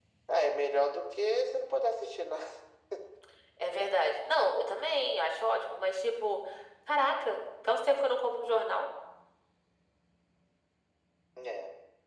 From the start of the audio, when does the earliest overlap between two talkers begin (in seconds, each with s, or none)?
none